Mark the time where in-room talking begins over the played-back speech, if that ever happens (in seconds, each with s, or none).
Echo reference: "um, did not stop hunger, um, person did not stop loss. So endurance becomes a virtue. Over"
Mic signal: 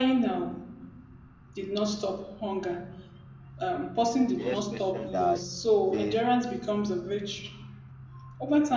4.3 s